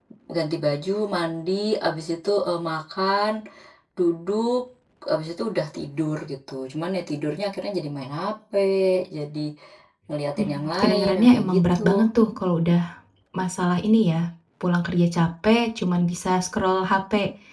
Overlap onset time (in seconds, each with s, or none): 10.4 s